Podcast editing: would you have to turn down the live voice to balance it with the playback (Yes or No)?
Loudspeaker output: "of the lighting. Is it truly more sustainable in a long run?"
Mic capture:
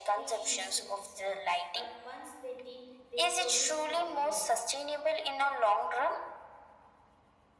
No